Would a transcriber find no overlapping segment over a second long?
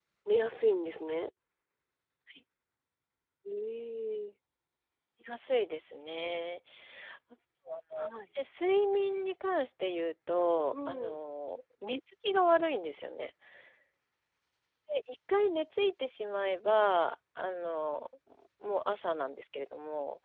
Yes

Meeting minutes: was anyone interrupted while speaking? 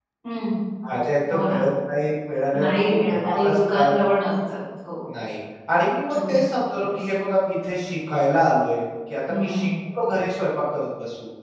Yes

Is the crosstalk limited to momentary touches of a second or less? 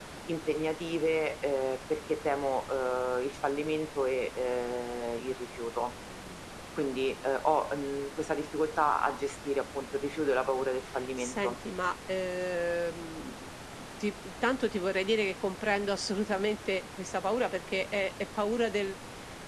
Yes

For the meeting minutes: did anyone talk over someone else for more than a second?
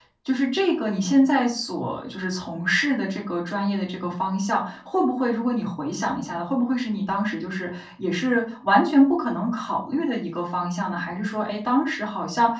No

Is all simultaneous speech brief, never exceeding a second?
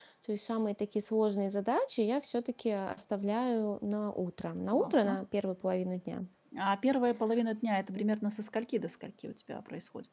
Yes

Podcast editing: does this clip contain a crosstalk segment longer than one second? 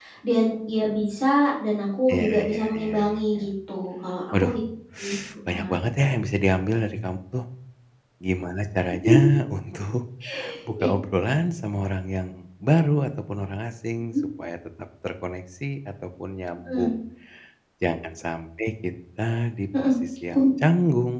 Yes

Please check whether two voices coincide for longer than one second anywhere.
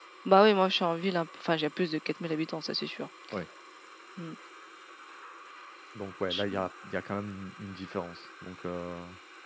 No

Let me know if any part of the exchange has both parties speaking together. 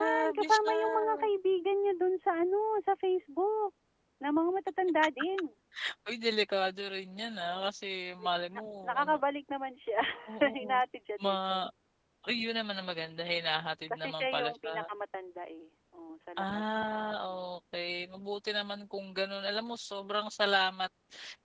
Yes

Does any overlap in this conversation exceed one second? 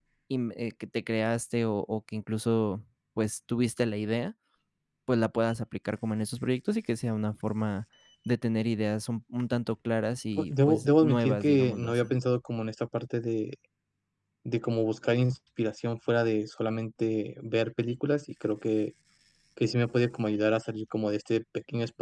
Yes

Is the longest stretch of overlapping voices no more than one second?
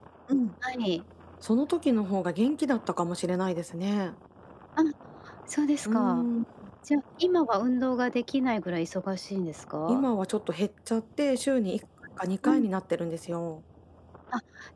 Yes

